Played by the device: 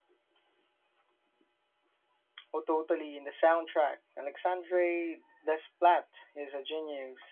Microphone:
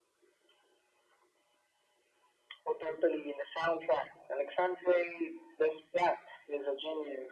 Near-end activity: none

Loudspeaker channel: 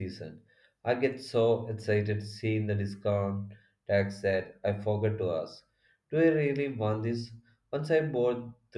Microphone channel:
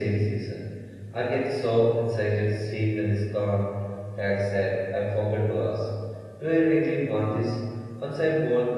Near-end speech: none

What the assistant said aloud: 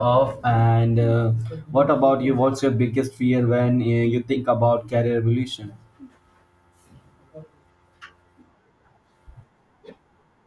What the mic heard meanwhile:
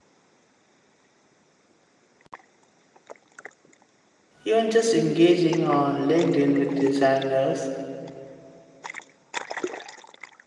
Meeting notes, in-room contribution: present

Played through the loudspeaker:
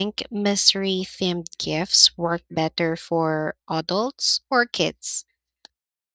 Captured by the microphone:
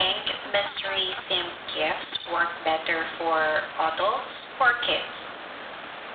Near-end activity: none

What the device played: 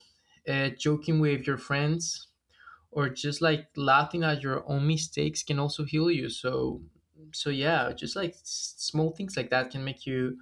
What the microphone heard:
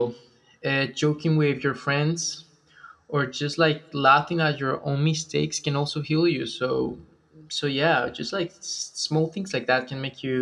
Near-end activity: none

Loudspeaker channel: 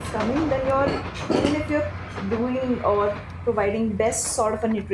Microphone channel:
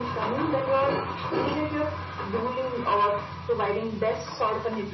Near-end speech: none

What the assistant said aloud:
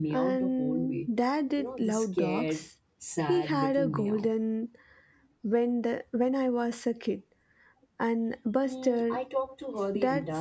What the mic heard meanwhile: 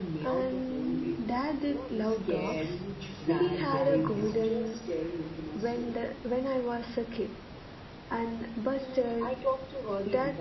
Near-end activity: present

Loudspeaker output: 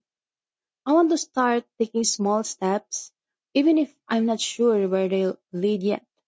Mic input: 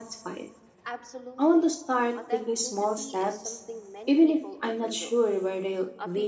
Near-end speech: present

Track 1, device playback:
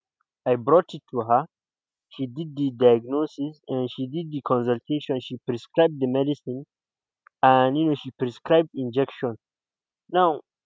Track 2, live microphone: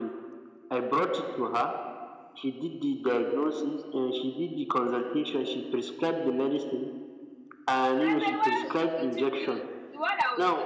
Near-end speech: present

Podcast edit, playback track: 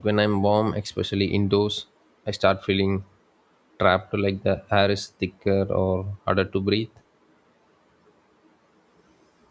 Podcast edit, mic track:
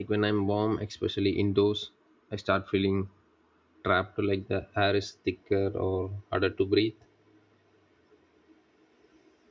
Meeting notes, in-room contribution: none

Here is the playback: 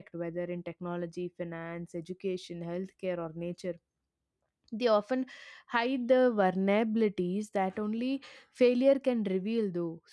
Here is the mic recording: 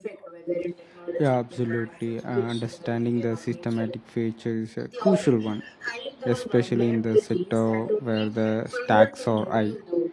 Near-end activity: present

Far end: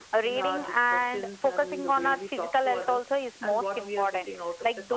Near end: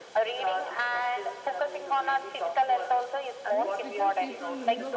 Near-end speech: present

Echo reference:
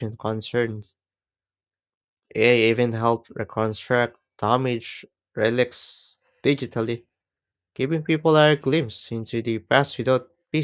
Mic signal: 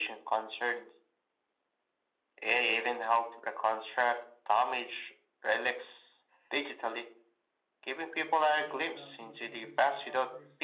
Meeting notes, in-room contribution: present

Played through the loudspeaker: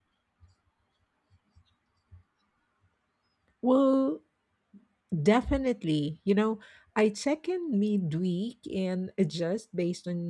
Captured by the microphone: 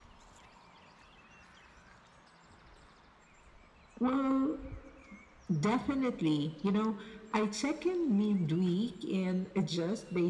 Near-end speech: none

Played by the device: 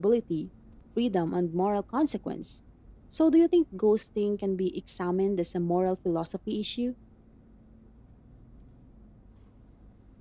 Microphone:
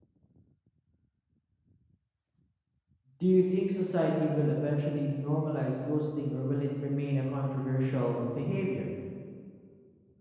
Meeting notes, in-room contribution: present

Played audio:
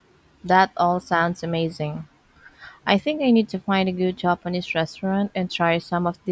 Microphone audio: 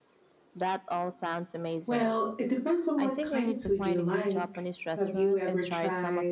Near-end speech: present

